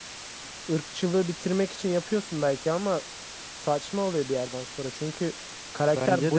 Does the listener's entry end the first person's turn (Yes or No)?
Yes